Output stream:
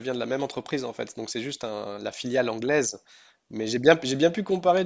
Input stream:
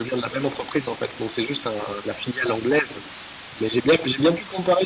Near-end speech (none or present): none